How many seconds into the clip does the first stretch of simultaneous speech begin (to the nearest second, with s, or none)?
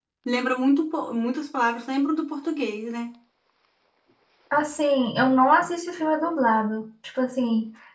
none